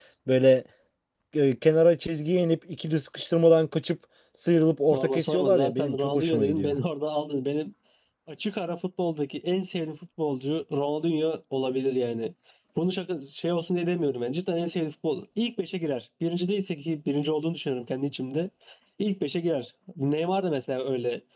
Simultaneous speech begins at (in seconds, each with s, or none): 4.9 s